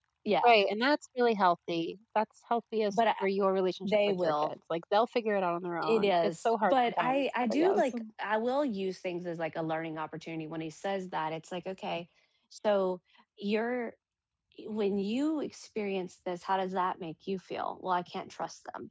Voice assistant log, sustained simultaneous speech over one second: present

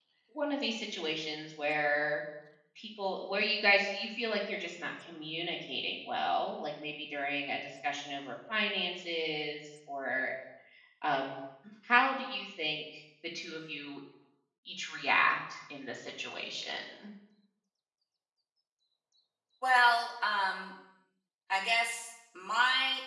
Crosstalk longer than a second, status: none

